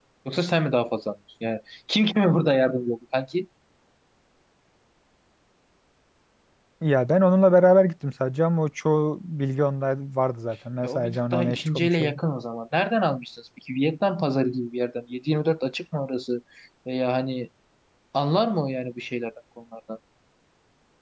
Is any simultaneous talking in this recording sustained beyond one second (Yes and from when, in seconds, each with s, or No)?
Yes, from 10.8 s